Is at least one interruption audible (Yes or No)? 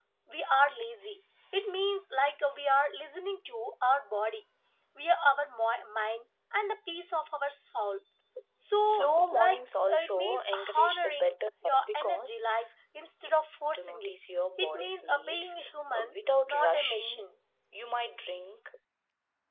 Yes